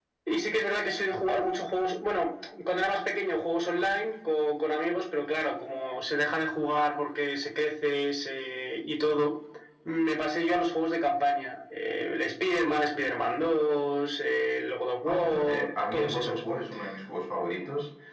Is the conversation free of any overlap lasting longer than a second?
No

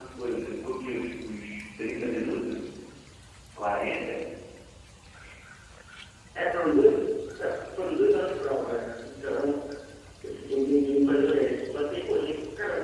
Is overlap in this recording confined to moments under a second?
Yes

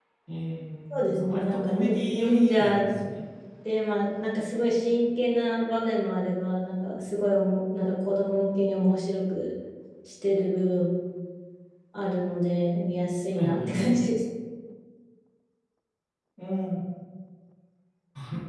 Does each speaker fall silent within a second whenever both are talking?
No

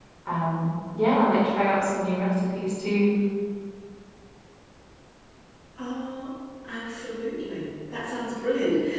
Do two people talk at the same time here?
No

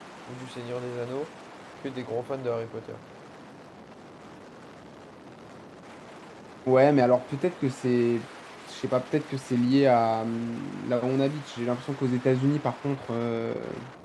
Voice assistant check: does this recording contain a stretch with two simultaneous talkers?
No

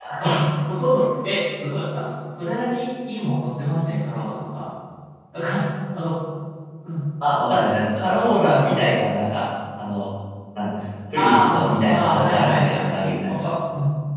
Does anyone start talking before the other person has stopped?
Yes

